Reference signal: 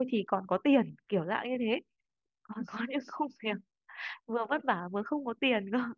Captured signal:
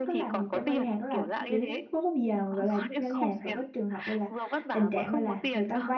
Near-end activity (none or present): present